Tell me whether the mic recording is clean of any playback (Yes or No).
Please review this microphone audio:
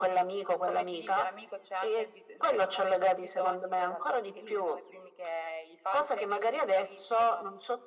No